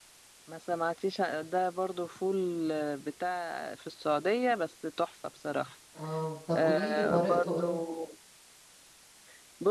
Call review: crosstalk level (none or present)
present